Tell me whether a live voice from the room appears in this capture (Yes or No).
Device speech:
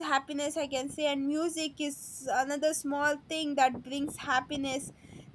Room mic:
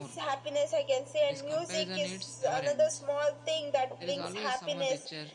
Yes